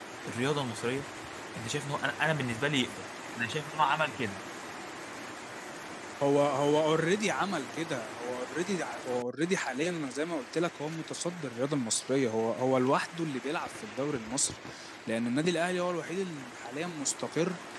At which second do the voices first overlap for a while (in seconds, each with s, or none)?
none